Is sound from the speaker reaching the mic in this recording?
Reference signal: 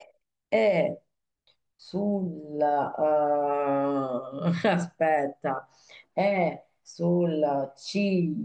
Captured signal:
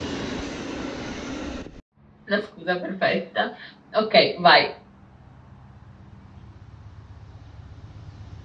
No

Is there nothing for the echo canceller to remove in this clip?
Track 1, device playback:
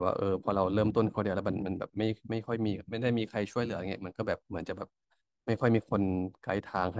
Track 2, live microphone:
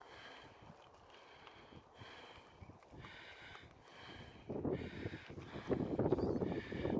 Yes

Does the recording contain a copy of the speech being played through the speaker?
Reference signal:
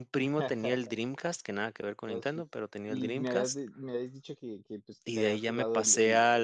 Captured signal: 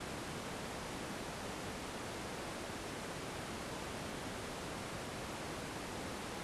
No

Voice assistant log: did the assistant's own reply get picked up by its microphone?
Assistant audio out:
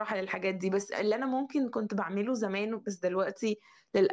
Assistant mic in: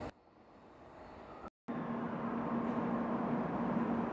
No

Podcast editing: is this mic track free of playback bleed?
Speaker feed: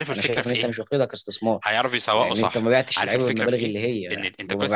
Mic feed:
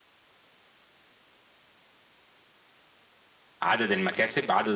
Yes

